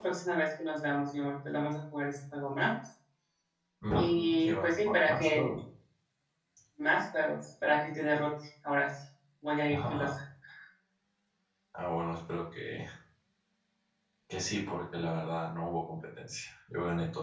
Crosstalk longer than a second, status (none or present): present